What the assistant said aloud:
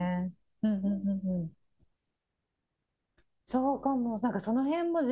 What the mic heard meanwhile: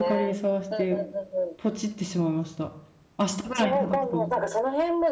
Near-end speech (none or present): present